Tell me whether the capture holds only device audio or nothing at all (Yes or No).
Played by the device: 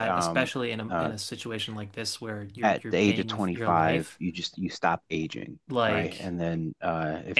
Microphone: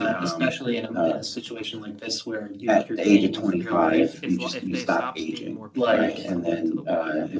No